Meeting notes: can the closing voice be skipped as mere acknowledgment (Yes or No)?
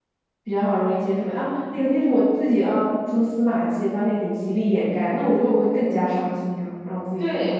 No